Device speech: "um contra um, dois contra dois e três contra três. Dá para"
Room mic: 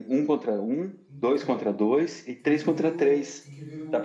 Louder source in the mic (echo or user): echo